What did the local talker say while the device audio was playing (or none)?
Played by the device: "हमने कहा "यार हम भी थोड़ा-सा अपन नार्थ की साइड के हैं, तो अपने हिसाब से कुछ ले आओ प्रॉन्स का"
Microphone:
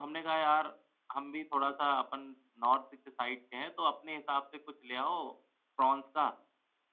none